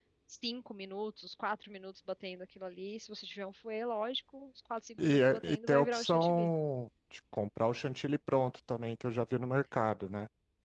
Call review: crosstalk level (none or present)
present